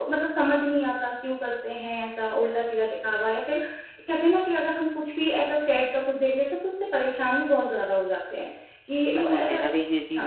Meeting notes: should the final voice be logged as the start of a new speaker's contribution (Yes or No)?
Yes